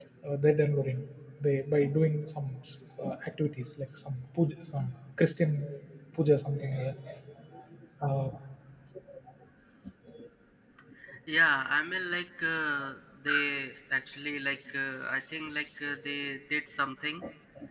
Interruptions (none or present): none